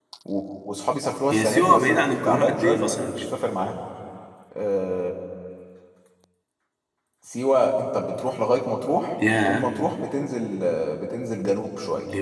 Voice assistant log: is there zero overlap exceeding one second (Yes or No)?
No